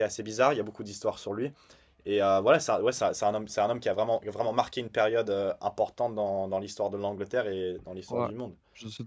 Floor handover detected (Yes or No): Yes